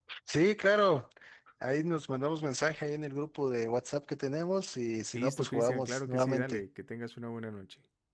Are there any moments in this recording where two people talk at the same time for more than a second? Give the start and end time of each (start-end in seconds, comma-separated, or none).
5.2-6.6